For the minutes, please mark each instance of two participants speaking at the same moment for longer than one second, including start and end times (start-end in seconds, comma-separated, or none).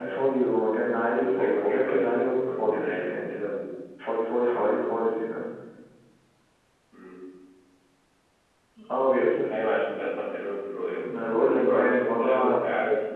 1.1-3.3, 11.1-12.6